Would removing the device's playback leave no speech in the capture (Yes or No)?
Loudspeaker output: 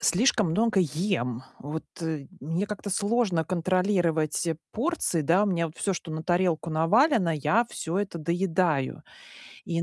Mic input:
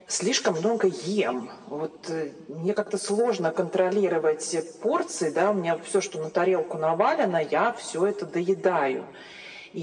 Yes